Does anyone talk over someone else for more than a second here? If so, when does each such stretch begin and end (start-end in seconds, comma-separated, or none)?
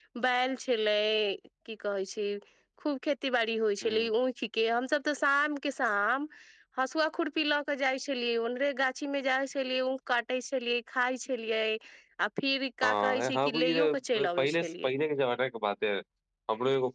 12.8-14.9